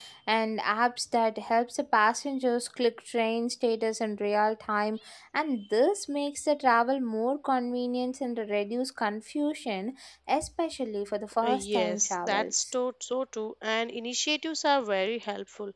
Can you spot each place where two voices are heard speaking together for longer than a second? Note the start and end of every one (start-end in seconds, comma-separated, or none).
11.4-12.6